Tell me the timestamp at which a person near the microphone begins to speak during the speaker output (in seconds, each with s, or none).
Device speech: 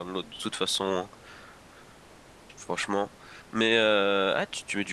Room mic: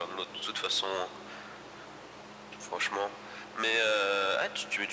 none